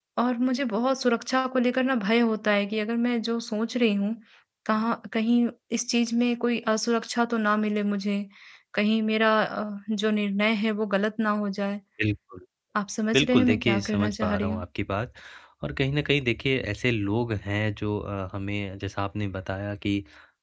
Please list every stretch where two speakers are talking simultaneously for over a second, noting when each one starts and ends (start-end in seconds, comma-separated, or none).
13.1-14.6